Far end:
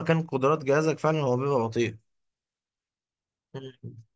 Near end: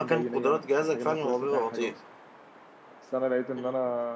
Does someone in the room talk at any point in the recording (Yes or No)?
Yes